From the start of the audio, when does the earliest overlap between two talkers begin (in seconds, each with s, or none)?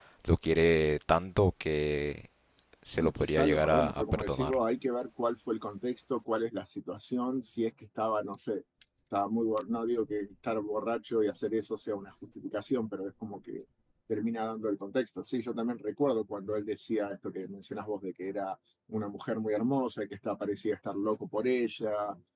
3.0 s